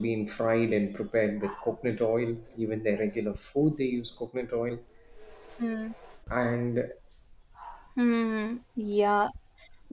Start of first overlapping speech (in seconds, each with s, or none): none